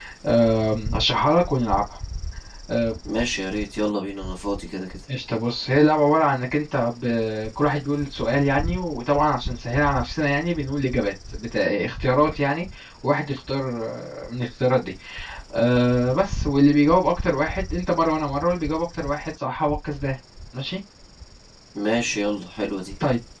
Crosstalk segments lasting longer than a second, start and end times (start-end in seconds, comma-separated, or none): none